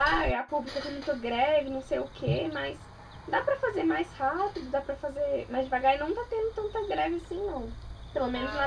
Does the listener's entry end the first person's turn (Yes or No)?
Yes